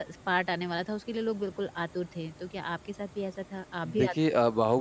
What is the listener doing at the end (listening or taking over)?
taking over